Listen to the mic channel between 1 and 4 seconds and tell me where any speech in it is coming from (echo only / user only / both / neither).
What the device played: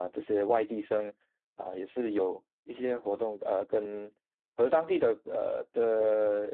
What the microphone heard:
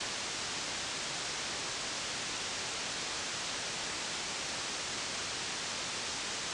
neither